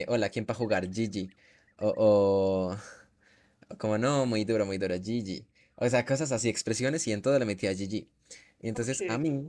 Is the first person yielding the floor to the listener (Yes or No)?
No